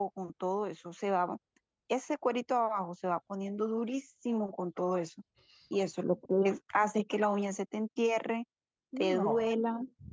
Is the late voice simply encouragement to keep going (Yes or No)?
Yes